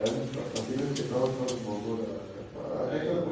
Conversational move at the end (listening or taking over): listening